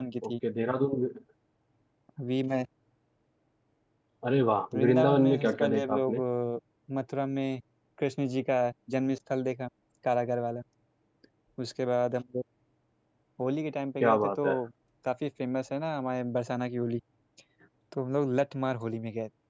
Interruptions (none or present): present